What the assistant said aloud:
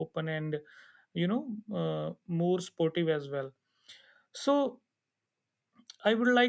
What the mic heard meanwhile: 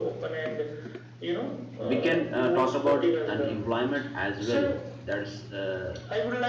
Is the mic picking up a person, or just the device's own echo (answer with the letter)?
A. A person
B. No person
A